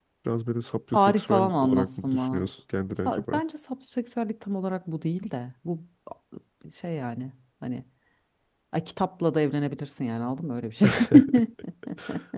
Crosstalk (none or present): present